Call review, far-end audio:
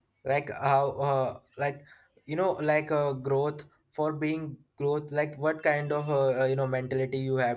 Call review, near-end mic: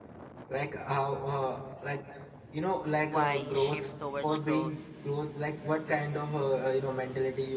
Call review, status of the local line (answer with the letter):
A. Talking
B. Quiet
A